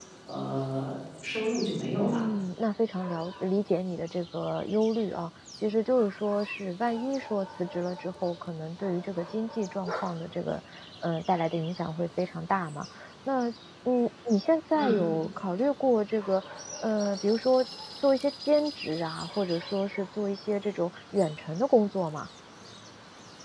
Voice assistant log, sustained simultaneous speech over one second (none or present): none